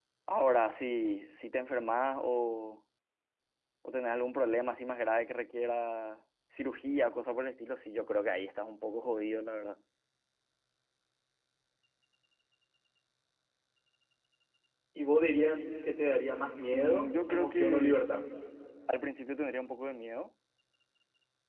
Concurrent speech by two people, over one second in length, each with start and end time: 16.7-18.0

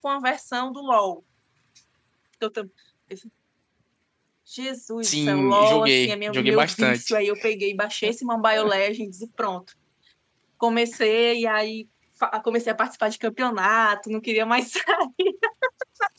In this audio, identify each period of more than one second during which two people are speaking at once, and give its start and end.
5.0-7.0

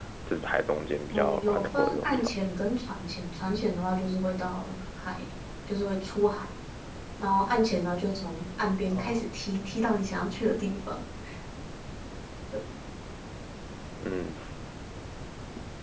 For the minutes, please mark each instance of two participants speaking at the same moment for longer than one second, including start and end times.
1.1-2.4

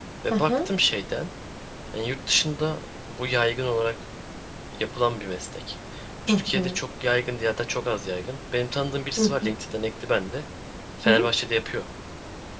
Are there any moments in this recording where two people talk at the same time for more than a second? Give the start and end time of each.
none

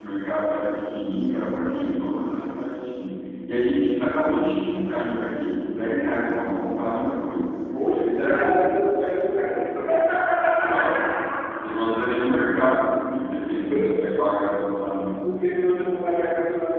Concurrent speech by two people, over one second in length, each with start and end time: none

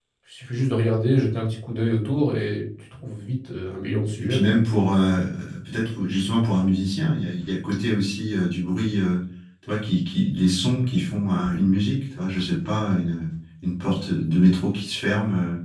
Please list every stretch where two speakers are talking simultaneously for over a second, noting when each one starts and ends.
none

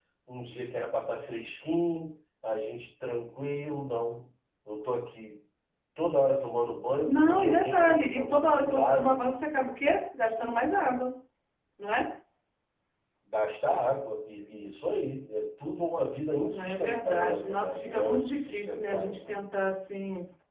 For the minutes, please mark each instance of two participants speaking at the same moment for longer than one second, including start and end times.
7.0-9.2, 16.6-19.3

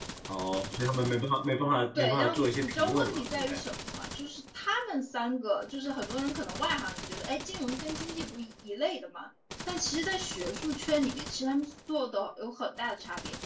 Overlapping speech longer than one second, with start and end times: 1.9-3.6

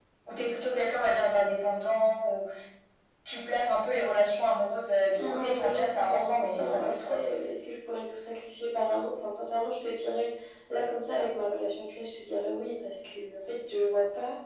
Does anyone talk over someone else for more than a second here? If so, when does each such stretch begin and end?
5.2-7.2

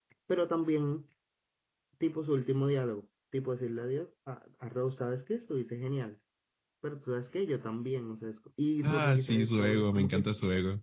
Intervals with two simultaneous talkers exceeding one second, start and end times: 8.8-10.2

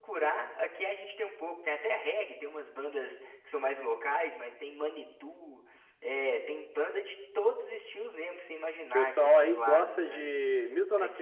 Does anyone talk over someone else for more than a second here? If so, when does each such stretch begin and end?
8.9-10.3

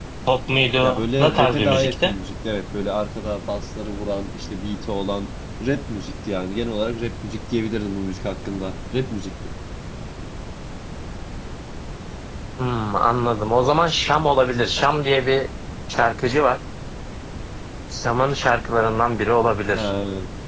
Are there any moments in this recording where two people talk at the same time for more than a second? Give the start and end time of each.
0.8-2.1

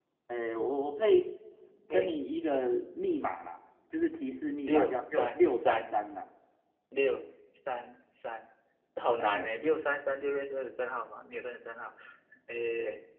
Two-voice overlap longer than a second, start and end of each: 4.7-5.9

